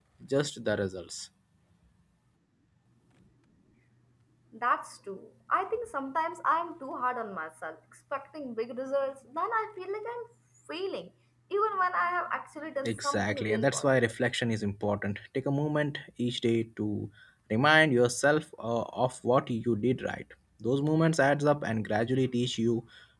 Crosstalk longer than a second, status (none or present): present